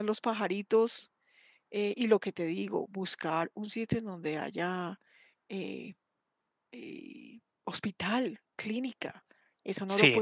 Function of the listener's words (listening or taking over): taking over